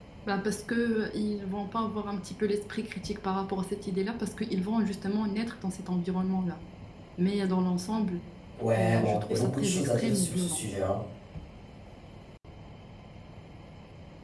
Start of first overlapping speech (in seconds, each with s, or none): 8.8 s